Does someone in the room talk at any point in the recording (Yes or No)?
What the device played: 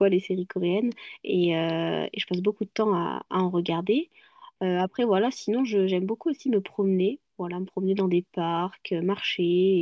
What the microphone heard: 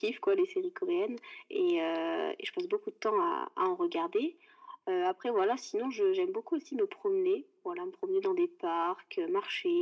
No